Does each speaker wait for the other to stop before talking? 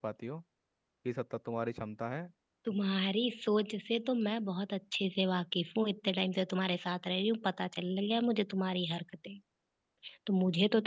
Yes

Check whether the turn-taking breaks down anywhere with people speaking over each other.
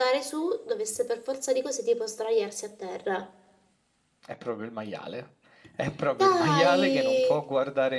Yes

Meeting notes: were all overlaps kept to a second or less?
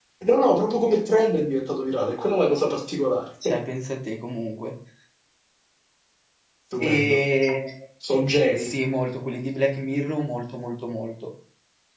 Yes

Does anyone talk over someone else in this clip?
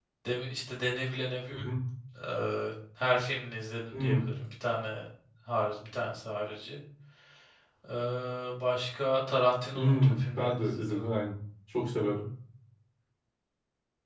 Yes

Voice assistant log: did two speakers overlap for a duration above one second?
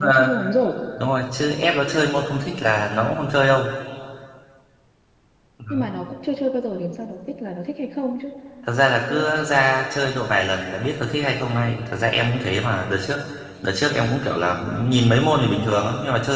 No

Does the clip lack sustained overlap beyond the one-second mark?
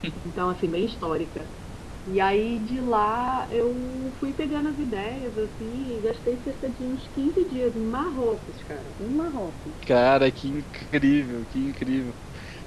Yes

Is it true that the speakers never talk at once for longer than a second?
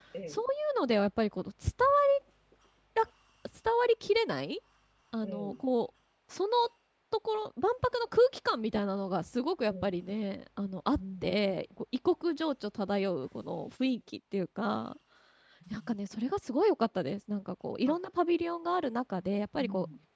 Yes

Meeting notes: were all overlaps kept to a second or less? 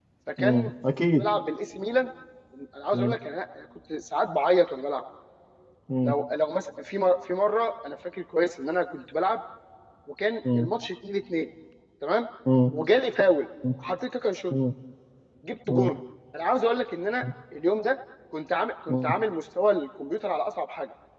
Yes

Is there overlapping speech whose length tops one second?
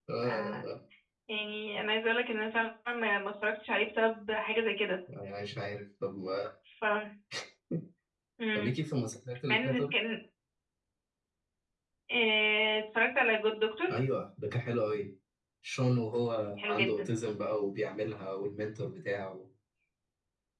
No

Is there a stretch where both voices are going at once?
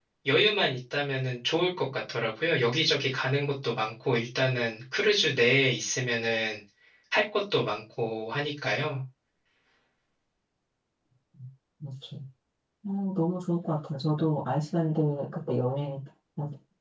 No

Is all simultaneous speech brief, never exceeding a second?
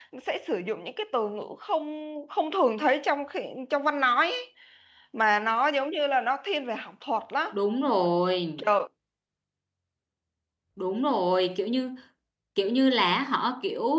Yes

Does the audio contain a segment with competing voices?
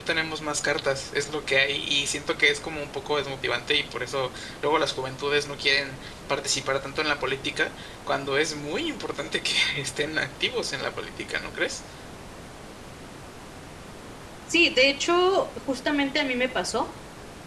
No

